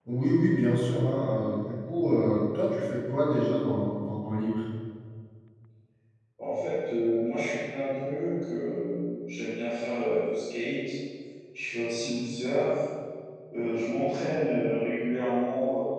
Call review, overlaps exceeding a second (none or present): none